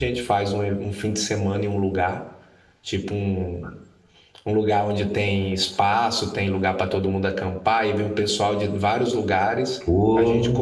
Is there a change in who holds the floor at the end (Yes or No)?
No